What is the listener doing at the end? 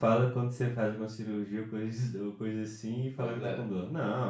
listening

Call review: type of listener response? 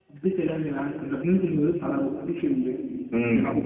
taking over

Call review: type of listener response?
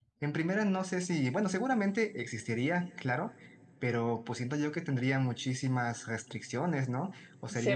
taking over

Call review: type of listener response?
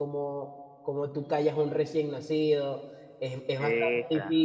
listening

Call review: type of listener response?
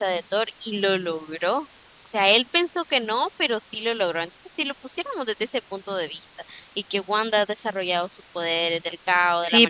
taking over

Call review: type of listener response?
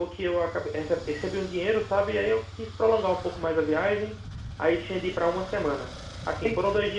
listening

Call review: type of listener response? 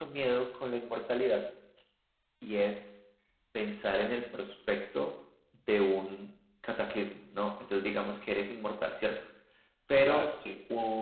listening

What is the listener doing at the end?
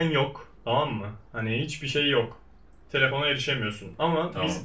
listening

